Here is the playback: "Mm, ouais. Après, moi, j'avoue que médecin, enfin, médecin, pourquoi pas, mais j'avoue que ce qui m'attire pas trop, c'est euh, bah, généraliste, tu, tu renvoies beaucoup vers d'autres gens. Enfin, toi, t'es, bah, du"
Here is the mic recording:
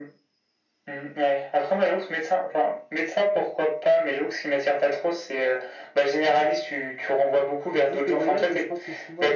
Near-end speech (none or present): present